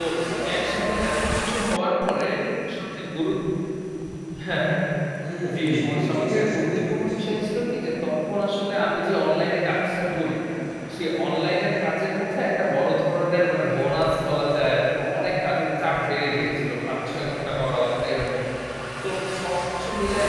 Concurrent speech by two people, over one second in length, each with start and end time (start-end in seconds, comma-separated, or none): 5.5-7.3